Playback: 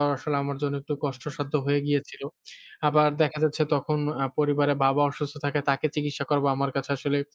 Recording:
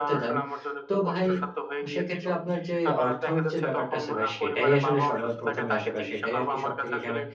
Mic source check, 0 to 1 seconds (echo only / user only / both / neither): both